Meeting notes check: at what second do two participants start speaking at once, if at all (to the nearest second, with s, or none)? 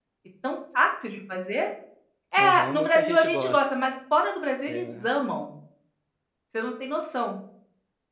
2 s